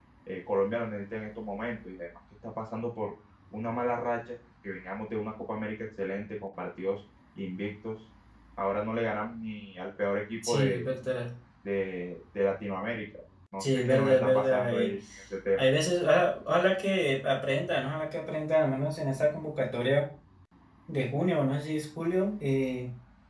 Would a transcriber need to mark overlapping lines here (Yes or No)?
Yes